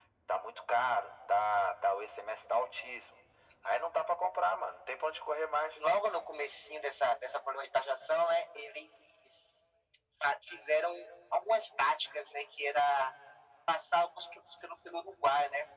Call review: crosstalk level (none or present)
none